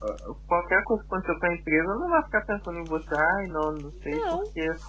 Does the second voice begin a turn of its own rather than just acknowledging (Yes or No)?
No